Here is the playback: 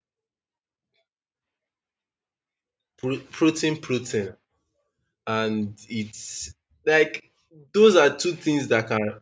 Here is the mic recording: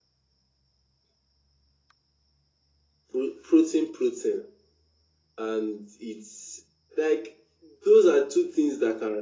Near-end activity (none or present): none